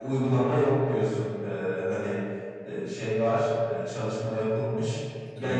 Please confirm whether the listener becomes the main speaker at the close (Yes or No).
No